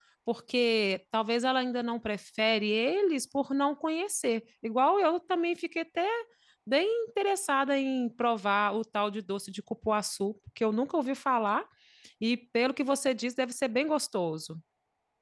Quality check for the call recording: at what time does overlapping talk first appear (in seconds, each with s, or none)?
none